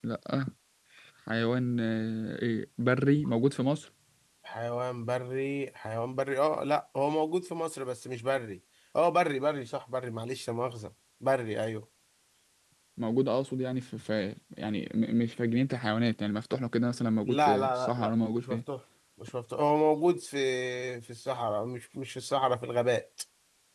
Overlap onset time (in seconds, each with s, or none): 17.3 s